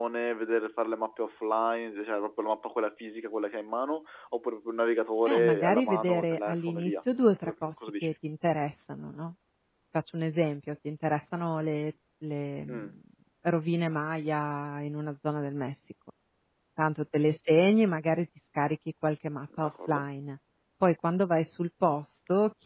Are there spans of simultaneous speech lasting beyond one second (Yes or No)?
Yes